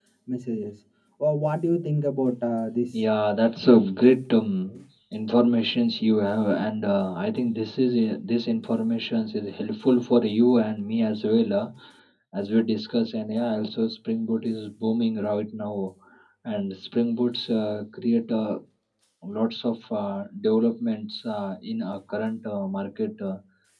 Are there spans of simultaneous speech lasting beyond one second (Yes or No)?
No